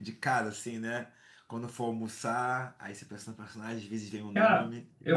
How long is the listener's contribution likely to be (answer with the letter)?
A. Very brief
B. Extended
B